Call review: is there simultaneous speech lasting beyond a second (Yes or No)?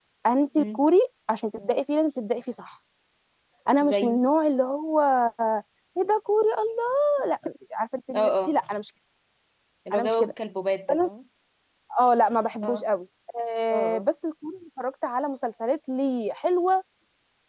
No